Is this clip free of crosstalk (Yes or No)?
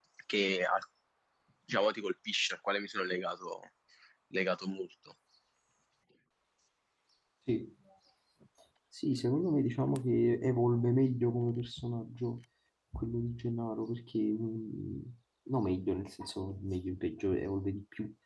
Yes